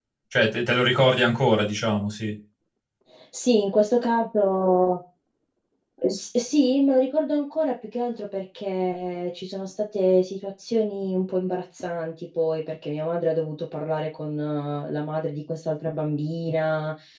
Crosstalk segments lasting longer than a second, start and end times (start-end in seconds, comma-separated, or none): none